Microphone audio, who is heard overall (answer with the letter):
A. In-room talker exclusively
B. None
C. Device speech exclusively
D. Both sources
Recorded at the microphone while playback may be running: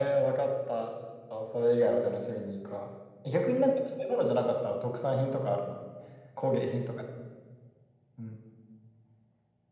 C